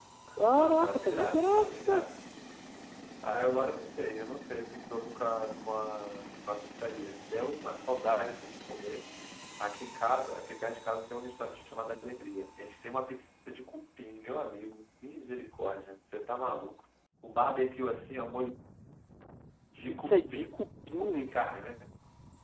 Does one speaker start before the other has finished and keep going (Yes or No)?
Yes